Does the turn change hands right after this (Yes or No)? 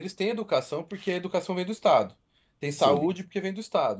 No